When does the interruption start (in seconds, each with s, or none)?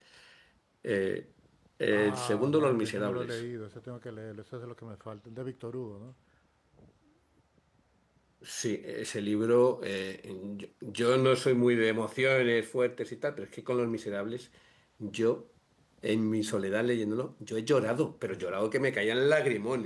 1.9 s